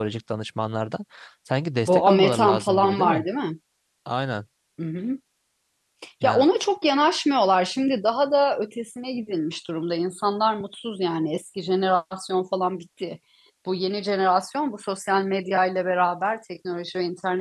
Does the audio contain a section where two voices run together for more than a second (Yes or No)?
Yes